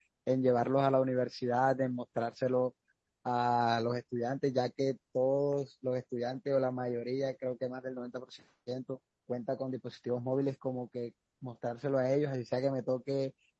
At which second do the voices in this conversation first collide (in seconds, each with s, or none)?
none